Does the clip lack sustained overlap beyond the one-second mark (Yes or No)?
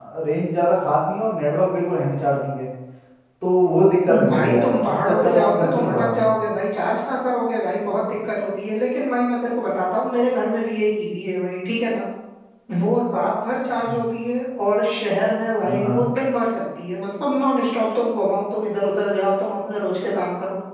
No